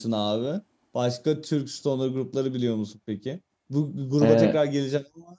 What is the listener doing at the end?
listening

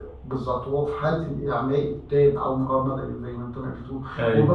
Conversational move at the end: listening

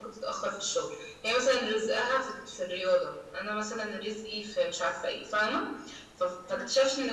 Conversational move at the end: listening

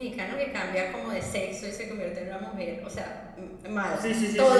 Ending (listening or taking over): taking over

